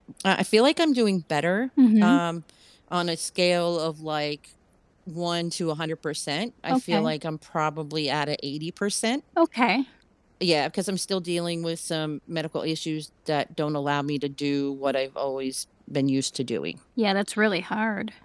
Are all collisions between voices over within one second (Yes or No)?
Yes